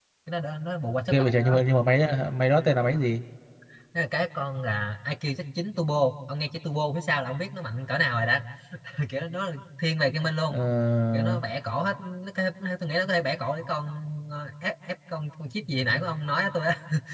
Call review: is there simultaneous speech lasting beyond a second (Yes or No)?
No